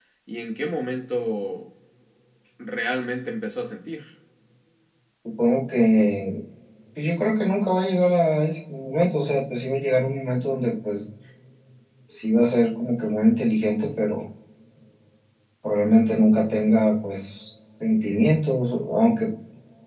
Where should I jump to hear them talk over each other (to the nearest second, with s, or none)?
none